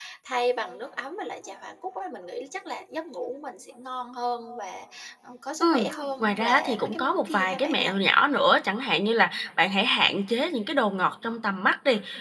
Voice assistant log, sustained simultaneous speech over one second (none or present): present